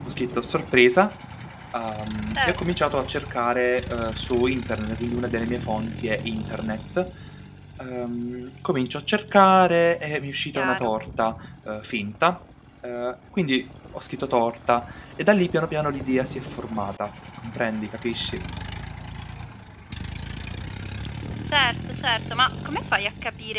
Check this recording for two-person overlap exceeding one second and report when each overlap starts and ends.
none

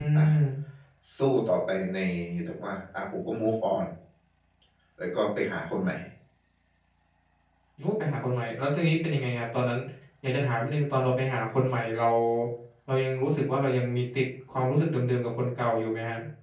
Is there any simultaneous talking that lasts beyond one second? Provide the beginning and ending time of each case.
none

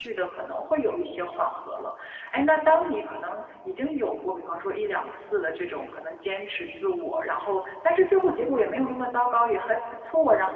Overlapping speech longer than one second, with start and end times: none

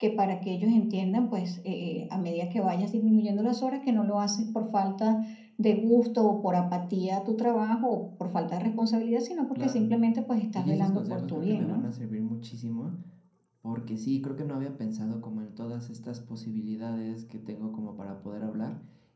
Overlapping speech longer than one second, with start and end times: 10.6-11.8

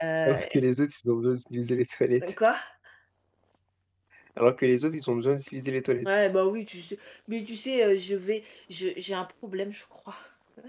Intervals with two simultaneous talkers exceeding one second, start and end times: none

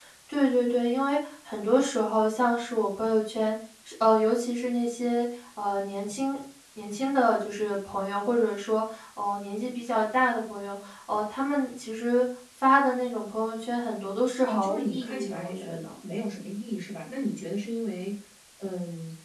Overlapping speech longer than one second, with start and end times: 14.5-15.8

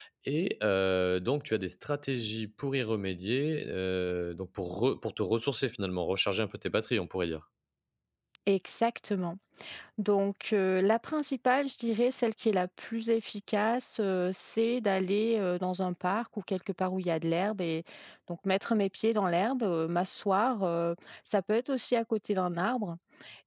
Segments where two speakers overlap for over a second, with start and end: none

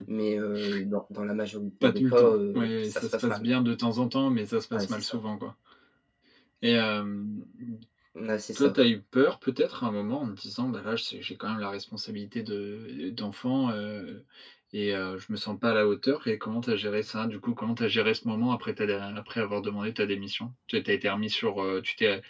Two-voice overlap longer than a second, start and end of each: 1.8-3.5

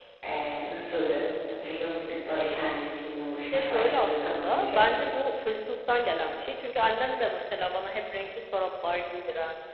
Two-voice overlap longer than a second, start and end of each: 3.5-4.8

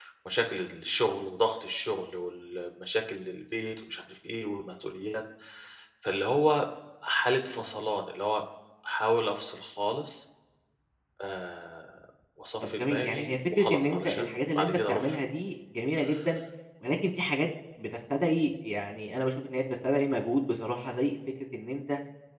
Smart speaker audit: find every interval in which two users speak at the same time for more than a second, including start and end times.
12.6-15.2

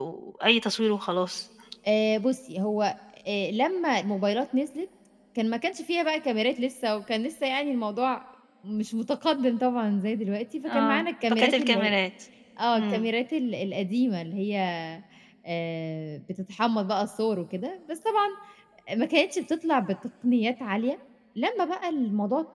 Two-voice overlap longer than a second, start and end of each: 10.7-11.9

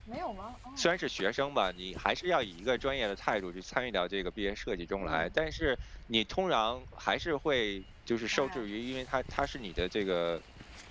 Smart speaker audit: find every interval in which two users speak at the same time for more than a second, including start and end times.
none

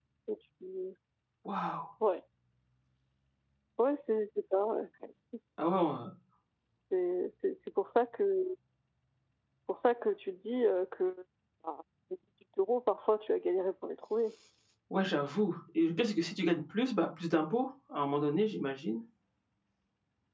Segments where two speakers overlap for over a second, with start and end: none

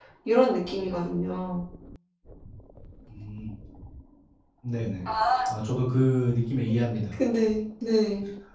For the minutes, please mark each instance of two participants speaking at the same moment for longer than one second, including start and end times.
none

